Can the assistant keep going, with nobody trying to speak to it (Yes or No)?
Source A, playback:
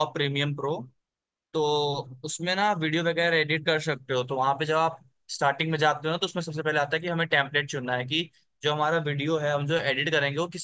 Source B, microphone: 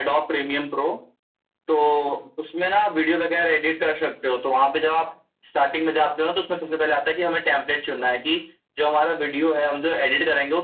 Yes